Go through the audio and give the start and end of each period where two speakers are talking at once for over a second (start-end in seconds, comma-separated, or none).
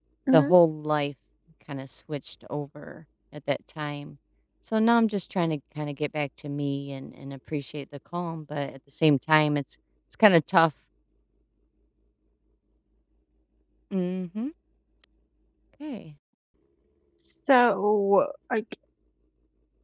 none